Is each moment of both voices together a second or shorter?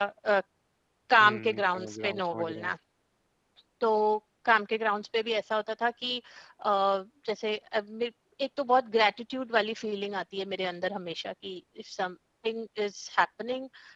No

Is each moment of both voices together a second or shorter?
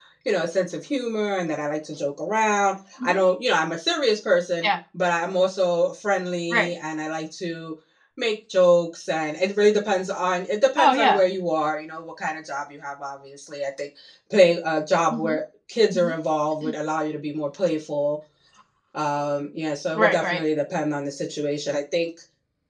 Yes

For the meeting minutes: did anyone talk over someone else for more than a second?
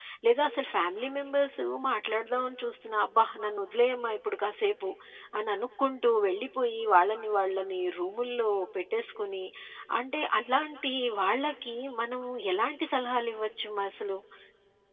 No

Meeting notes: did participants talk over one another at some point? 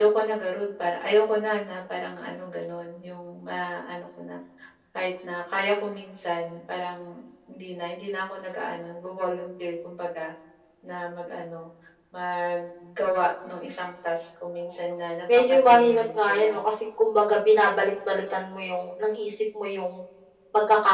Yes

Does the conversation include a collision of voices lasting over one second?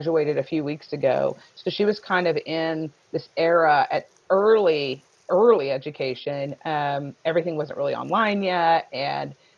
No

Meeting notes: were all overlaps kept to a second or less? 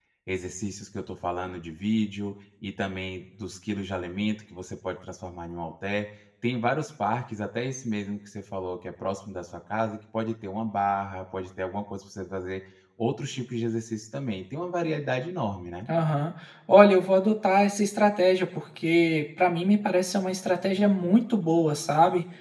Yes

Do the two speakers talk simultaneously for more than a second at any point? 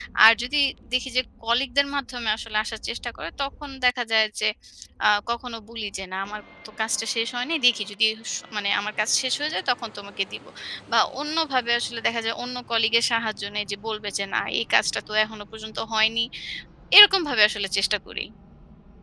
No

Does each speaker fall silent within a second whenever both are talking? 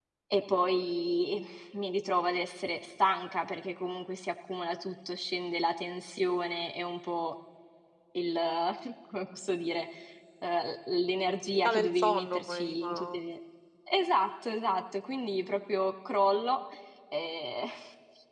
No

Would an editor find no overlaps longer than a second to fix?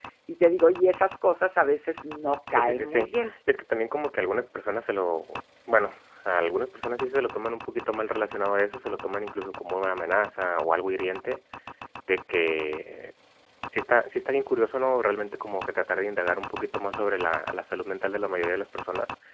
Yes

